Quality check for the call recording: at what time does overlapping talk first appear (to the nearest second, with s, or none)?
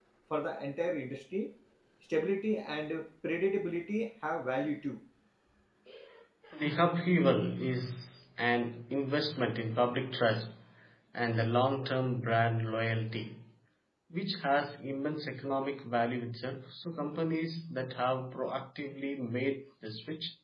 none